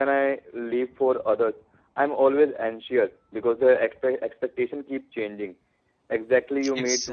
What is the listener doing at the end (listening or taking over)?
listening